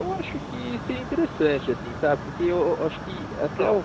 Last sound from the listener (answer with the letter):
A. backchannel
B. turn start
A